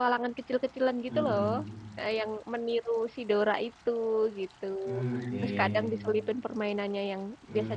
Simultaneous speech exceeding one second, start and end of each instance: none

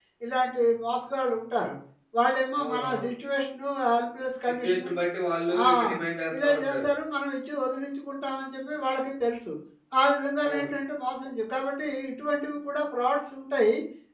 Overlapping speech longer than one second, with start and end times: none

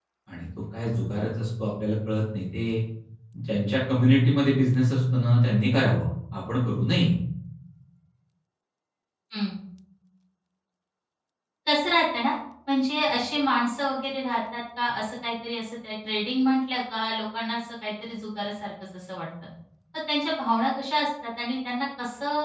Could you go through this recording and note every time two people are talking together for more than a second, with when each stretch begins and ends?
none

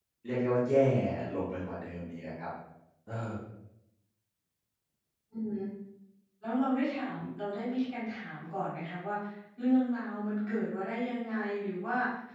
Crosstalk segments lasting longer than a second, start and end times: none

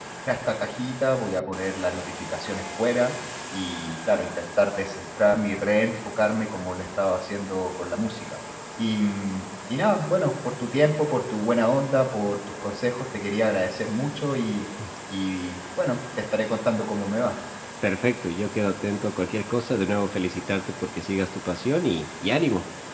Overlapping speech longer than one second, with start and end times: none

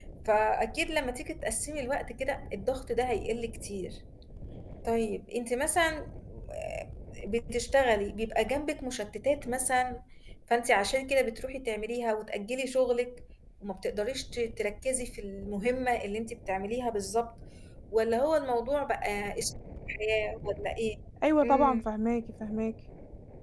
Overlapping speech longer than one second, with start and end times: none

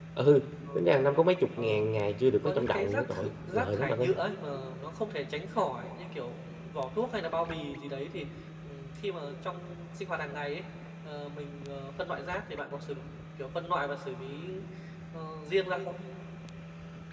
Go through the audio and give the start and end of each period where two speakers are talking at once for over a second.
2.4-4.1

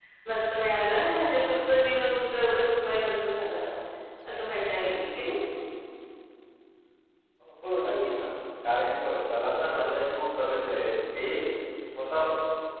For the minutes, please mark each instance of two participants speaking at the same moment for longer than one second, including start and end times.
none

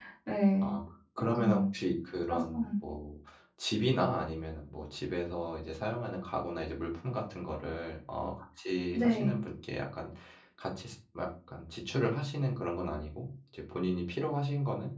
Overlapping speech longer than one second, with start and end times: none

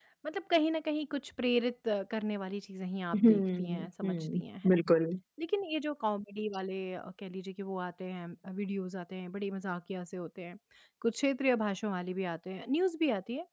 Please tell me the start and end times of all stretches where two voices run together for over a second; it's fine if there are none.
3.1-4.8

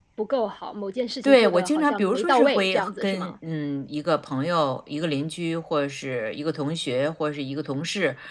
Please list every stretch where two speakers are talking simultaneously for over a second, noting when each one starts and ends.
1.2-3.3

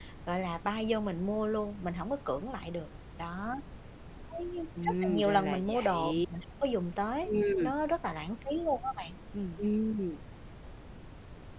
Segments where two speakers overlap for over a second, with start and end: 4.8-6.2

